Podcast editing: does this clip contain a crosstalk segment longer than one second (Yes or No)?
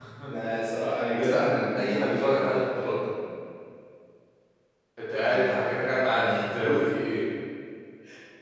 Yes